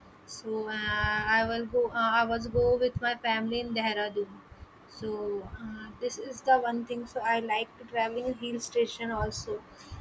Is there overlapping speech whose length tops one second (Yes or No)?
No